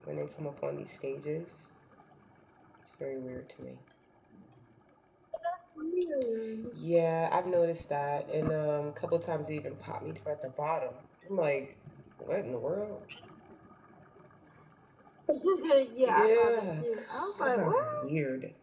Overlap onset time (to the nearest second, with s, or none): 16 s